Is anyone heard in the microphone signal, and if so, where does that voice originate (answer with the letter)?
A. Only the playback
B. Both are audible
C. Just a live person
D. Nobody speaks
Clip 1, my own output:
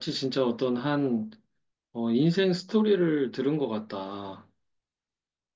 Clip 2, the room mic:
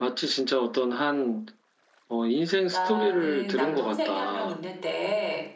B